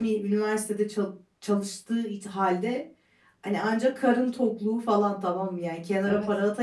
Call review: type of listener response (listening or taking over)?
listening